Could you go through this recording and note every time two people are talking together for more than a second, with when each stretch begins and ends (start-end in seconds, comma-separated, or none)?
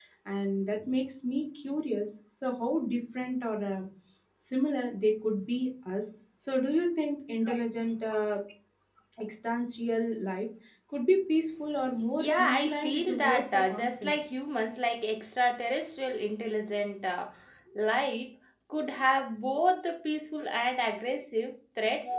12.2-14.1